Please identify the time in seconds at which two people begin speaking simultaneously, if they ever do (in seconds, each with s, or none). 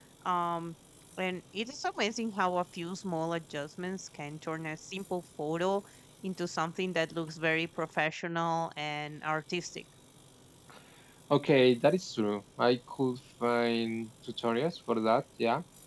none